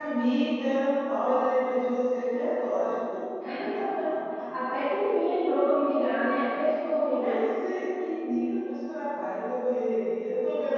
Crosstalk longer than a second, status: none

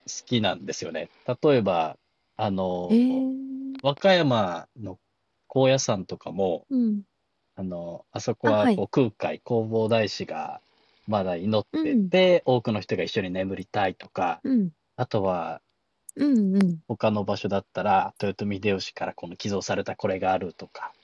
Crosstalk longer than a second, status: none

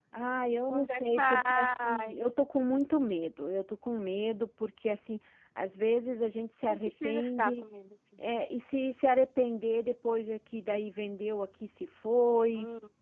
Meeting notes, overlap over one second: present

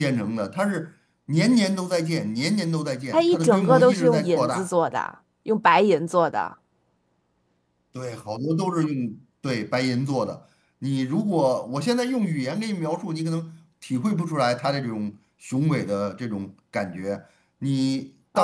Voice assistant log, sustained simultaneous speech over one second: present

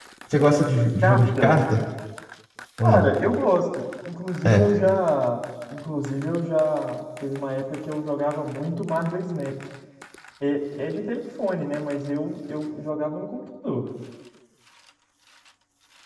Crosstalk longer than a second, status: none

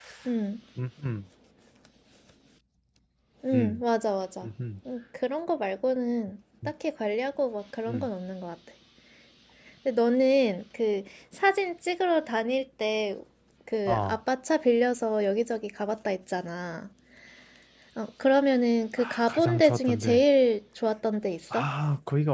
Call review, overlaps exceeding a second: present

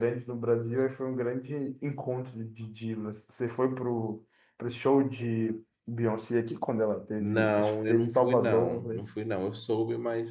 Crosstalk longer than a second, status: present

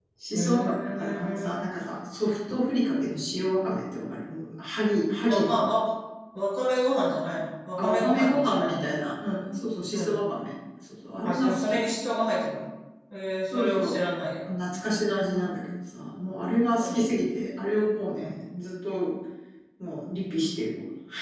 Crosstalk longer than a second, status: present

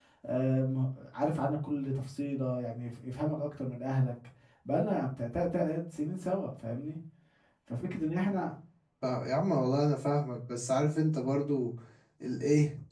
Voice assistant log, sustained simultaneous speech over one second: none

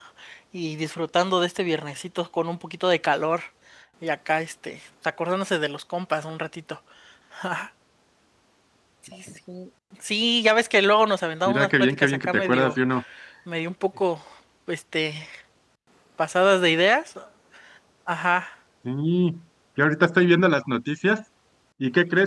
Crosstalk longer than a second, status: present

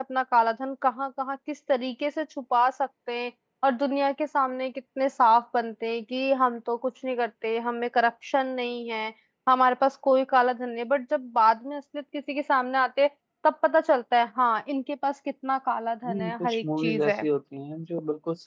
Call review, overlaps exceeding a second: present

